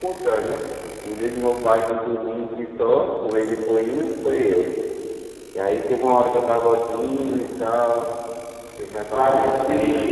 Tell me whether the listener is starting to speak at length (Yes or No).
No